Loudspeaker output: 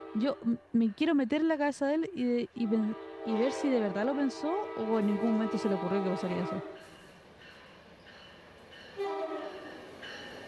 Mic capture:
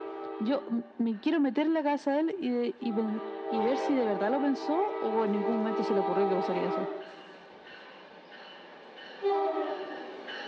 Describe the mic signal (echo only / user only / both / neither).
echo only